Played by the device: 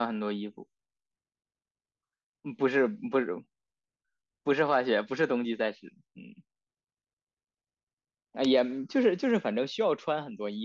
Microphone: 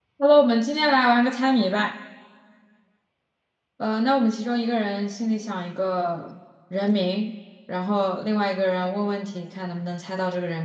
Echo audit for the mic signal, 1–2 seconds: user only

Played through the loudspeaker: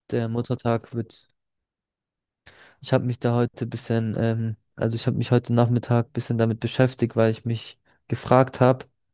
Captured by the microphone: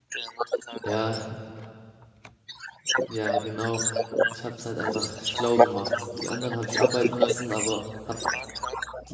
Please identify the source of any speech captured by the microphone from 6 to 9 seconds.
both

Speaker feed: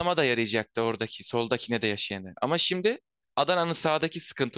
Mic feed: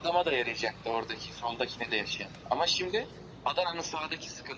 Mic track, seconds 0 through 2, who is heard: echo only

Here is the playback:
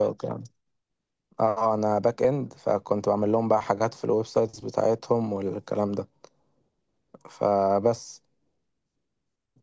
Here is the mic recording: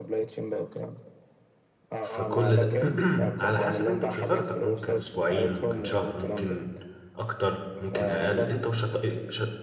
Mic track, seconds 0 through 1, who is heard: echo only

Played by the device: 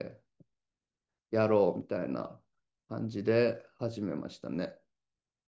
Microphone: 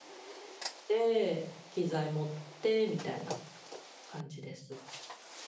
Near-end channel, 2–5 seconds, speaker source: user only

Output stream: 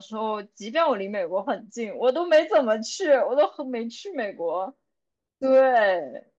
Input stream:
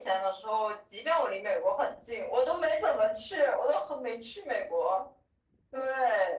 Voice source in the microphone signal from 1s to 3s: echo only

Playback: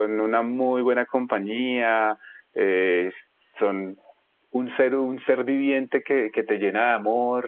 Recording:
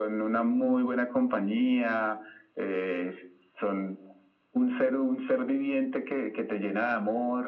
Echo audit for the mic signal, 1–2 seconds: echo only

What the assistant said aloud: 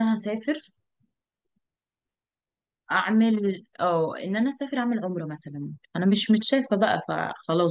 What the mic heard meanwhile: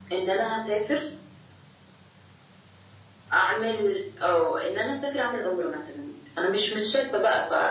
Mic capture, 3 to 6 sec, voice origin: echo only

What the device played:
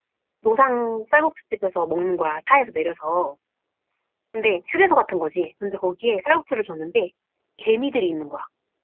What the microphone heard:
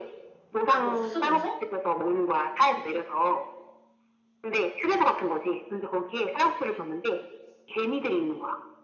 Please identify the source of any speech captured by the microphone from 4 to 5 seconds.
echo only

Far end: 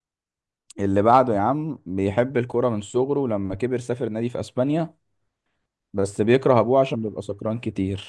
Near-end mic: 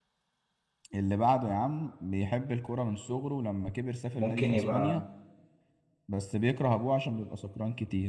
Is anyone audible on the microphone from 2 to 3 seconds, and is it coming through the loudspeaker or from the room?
echo only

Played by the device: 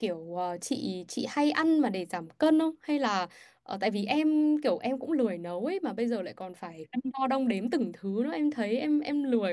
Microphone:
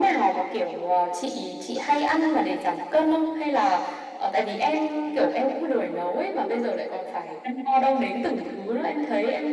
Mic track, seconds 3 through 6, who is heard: echo only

